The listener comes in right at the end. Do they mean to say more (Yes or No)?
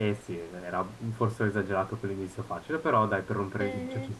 Yes